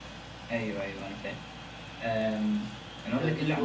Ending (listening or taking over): listening